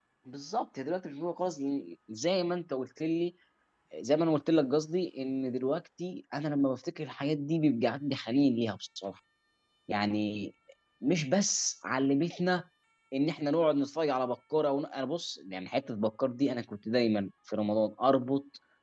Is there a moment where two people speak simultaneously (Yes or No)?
No